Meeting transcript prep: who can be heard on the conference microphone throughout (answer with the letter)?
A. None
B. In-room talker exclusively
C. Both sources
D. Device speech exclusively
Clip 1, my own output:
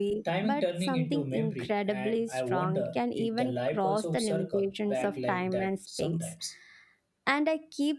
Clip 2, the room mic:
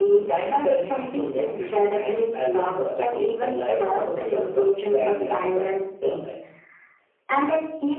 D